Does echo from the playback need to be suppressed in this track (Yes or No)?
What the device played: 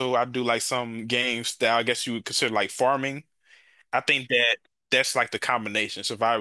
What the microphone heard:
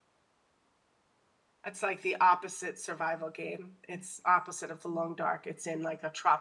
No